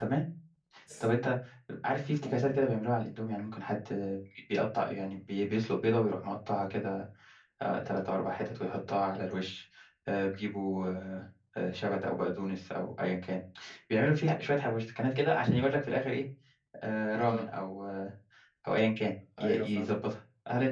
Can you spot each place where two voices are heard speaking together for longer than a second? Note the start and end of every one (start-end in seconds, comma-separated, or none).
none